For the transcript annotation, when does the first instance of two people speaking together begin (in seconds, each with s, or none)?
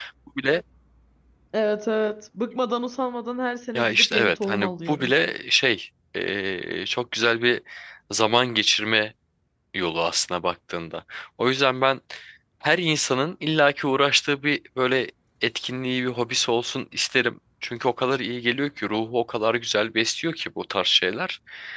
3.8 s